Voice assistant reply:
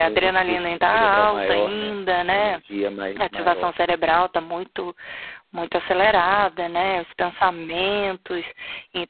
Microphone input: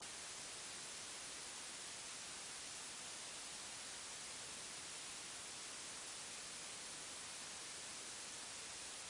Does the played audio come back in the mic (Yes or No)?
No